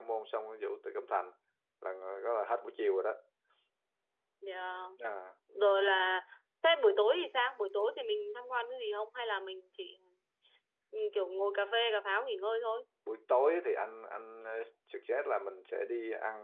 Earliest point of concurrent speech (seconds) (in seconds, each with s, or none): none